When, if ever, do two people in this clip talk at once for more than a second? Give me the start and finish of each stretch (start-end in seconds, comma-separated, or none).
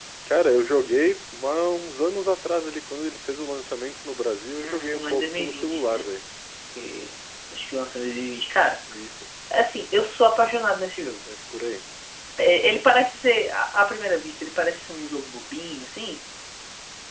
4.6-6.1